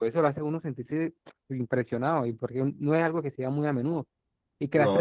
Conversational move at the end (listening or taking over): listening